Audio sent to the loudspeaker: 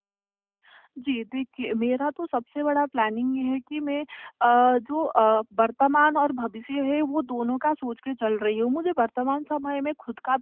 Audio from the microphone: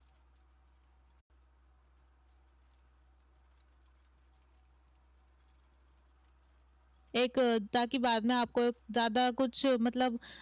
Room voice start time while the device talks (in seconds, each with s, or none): 7.2 s